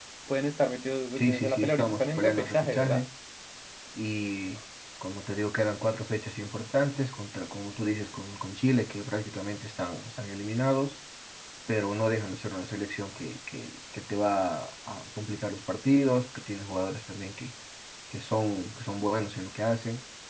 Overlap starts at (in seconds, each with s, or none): 1.2 s